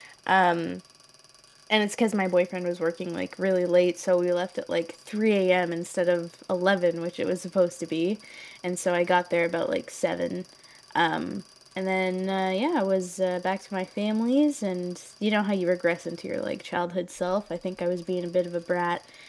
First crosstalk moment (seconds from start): none

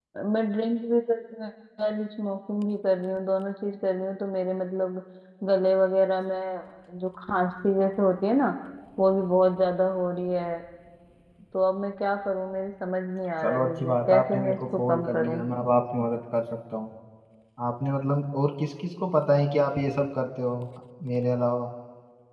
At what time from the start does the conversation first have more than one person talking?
13 s

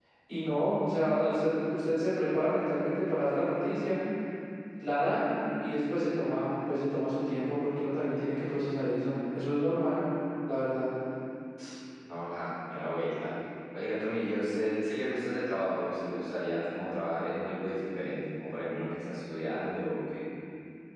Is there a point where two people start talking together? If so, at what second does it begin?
none

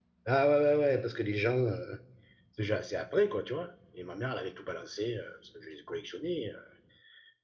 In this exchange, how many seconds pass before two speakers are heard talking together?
none

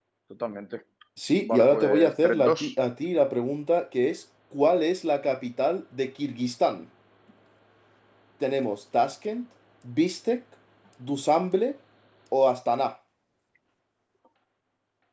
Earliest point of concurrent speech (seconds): 1 s

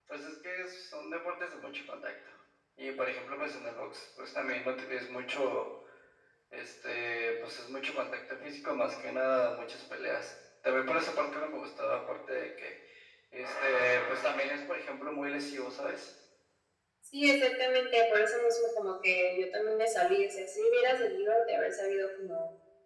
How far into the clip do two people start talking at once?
none

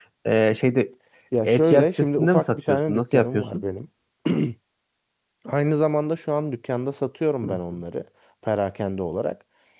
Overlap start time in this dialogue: 1 s

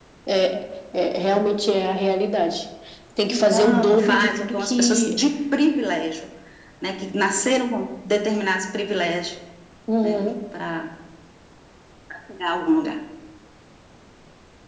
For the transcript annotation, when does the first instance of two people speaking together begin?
3 s

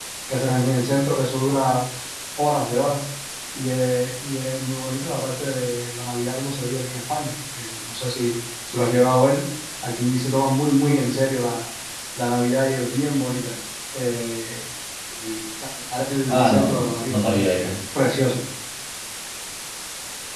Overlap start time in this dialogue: 16 s

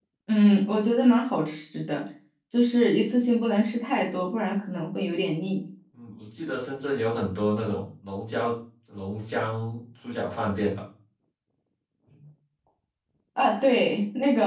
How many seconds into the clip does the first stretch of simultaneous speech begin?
none

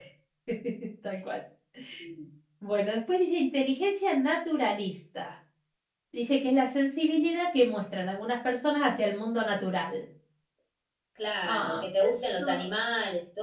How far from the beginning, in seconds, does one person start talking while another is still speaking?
11 s

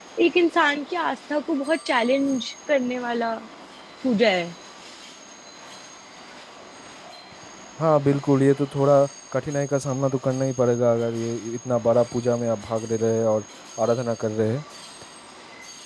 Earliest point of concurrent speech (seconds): none

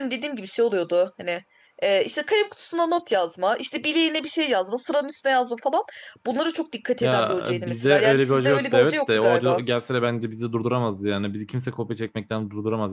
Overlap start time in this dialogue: 7 s

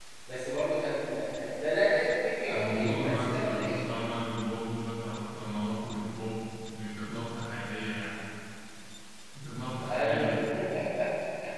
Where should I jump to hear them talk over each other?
3 s

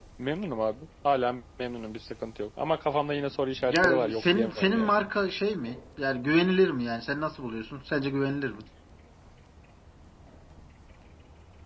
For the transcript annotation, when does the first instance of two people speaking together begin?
4 s

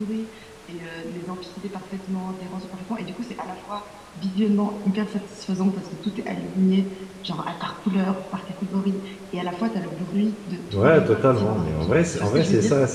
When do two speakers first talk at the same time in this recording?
11 s

